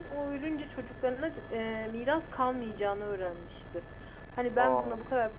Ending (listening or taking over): listening